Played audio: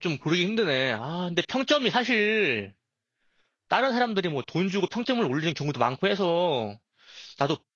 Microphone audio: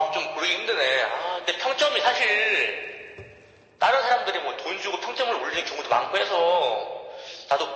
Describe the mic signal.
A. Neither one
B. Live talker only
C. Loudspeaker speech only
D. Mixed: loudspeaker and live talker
C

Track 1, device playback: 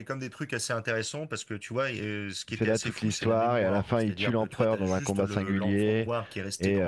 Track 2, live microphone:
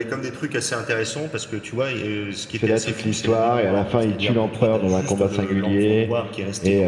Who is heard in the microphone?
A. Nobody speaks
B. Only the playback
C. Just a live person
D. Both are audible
B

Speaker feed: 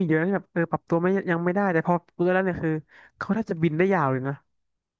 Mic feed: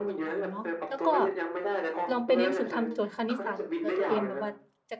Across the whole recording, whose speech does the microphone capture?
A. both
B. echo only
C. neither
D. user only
A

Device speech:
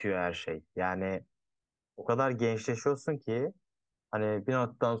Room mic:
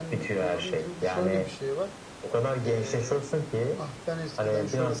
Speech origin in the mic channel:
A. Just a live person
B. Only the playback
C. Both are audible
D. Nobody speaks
C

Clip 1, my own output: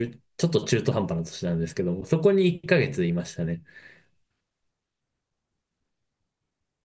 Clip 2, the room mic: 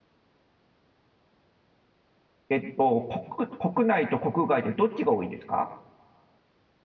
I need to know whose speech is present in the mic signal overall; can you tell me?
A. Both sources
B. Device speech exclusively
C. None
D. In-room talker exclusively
D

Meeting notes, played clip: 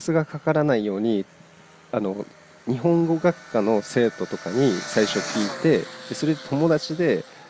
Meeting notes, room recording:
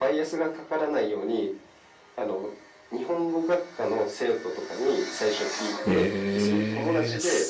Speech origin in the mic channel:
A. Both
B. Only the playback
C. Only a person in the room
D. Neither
A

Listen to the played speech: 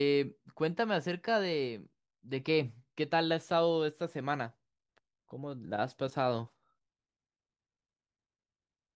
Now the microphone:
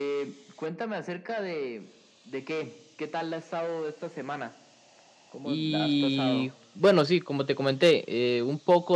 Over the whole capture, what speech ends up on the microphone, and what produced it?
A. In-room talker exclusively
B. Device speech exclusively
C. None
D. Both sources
D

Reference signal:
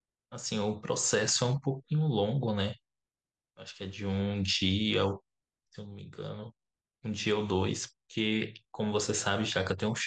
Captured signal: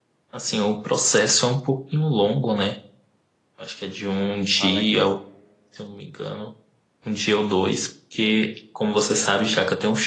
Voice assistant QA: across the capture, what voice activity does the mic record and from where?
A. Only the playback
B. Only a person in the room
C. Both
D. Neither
C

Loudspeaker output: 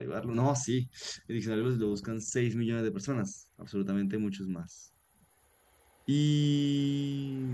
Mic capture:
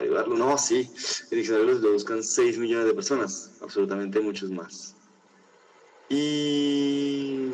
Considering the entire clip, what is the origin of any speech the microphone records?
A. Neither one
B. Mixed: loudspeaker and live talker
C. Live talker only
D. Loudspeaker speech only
D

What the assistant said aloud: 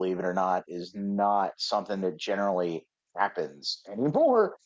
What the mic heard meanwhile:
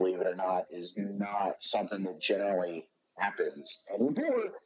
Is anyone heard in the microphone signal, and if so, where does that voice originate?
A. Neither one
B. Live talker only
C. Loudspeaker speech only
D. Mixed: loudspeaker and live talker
C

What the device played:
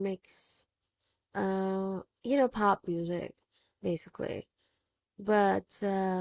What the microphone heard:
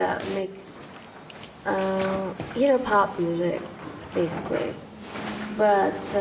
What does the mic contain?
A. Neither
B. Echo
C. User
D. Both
B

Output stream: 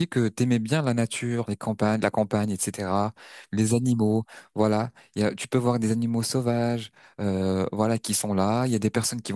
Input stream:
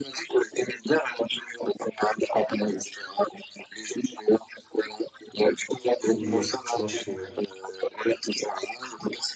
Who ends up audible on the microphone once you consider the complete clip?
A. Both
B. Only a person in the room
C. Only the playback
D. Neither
A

